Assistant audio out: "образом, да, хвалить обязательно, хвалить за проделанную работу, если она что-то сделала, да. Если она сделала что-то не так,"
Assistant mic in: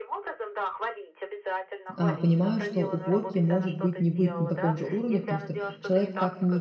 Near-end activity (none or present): present